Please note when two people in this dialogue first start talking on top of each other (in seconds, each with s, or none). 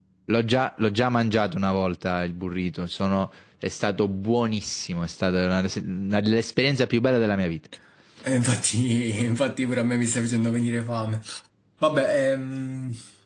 none